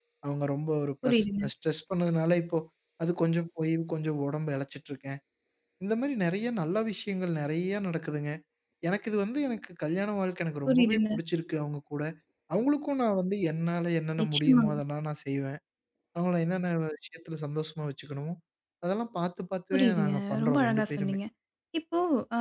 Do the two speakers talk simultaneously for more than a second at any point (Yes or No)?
Yes